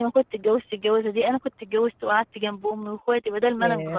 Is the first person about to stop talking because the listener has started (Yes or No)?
No